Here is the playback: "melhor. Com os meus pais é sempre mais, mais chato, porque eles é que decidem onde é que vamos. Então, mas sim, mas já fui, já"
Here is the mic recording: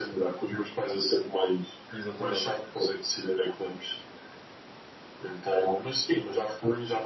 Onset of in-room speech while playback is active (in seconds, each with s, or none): 1.9 s